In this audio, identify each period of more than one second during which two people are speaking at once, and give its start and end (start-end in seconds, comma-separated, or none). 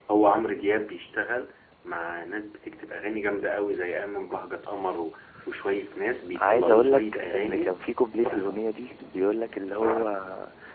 6.3-7.8